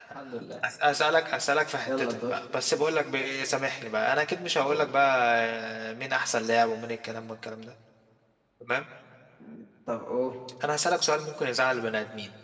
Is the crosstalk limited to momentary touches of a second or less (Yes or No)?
Yes